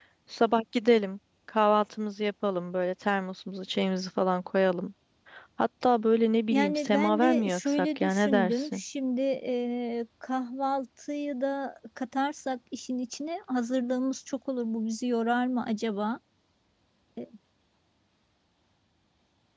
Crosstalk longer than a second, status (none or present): present